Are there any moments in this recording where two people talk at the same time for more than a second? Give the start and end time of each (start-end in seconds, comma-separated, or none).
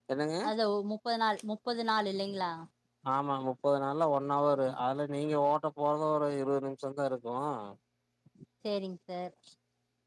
none